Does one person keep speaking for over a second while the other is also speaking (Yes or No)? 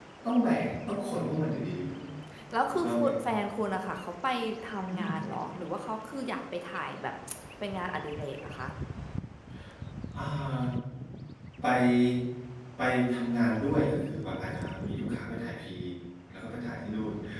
No